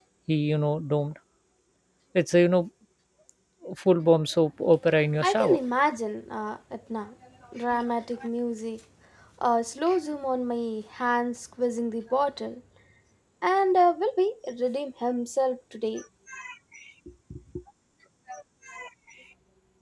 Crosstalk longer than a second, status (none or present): none